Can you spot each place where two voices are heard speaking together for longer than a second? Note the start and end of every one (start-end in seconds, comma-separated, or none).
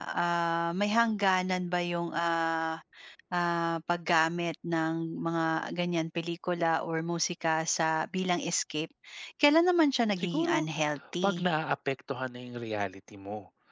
none